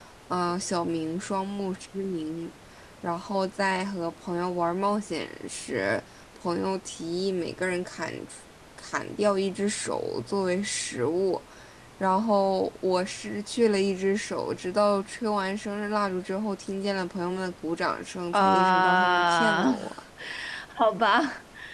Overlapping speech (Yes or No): Yes